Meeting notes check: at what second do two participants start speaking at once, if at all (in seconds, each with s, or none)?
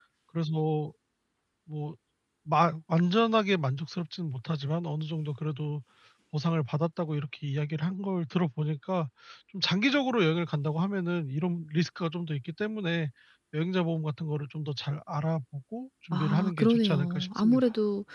16.1 s